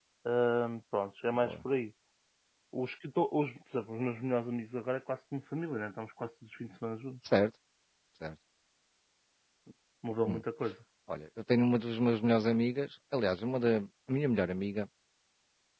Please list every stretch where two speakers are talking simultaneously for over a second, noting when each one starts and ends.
none

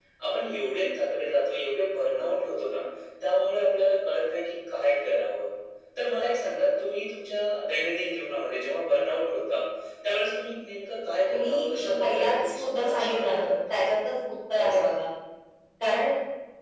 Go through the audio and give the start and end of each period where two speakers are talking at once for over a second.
11.3-13.8

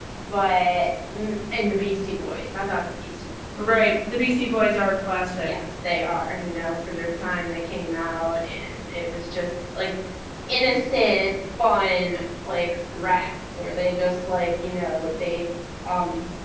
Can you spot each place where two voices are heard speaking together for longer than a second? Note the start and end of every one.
none

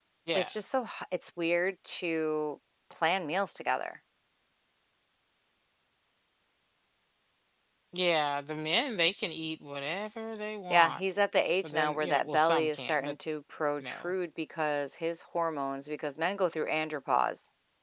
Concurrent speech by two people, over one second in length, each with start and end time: 11.6-13.2

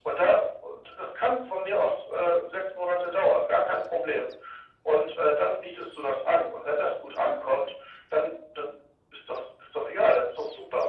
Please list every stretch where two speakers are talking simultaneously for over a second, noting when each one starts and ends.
none

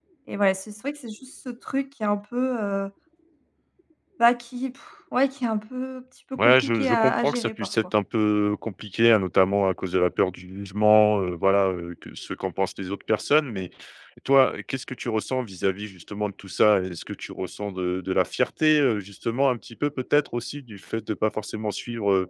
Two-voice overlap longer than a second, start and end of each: 6.4-7.7

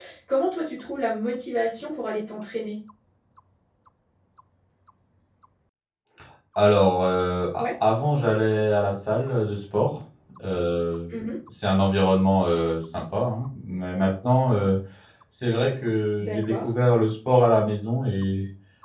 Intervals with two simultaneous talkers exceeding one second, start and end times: none

